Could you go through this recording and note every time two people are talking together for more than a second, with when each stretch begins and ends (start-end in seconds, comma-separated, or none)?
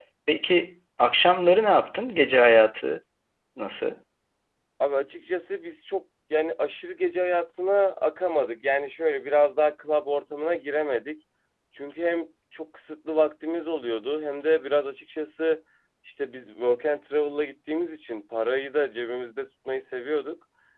none